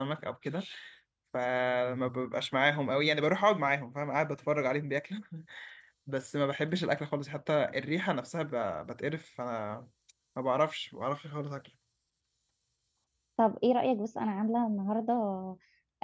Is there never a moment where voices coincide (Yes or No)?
Yes